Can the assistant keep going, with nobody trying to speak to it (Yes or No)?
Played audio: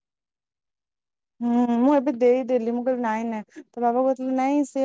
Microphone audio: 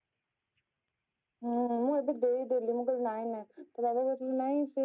Yes